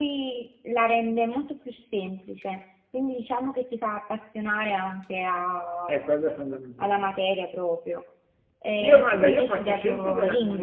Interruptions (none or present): present